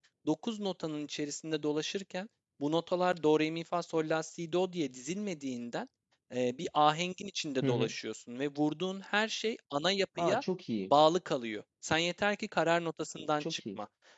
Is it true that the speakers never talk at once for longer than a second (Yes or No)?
Yes